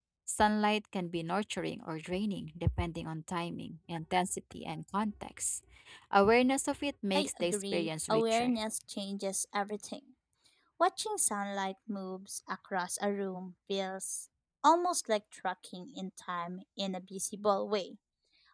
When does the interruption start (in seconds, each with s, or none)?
7.1 s